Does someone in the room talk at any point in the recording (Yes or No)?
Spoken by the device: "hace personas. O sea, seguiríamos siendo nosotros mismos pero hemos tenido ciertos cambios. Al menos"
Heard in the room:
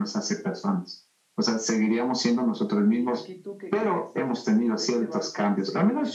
Yes